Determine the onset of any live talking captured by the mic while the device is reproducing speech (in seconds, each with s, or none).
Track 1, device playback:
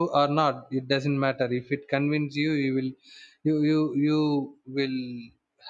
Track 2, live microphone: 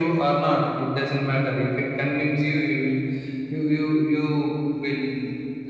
none